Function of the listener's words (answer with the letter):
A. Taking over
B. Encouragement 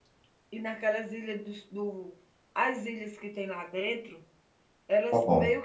B